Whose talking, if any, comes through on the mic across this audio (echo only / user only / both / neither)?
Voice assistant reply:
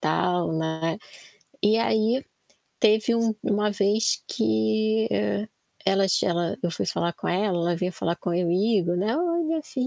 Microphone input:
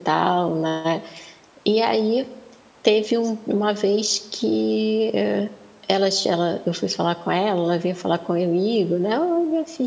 echo only